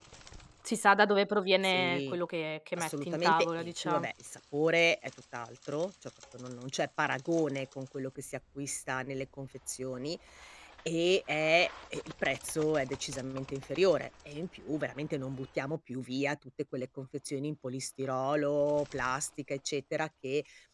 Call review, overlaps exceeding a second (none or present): present